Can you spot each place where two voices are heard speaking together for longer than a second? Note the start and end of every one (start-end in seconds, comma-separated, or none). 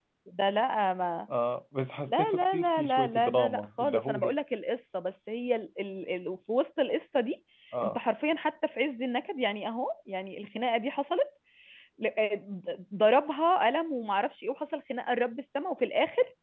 2.1-4.3